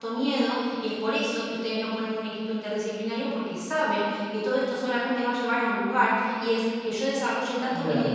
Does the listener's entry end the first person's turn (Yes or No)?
No